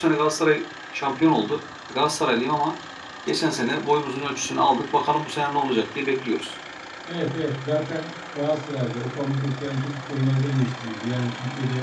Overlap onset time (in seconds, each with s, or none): none